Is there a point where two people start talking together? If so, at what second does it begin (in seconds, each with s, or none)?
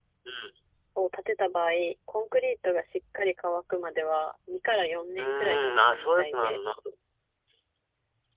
5.2 s